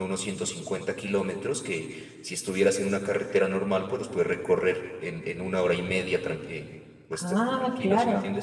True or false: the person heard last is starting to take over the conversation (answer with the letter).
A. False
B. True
B